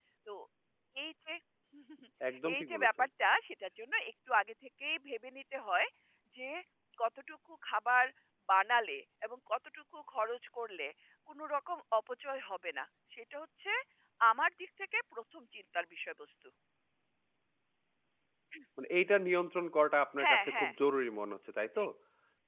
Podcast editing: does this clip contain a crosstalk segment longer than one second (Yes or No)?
No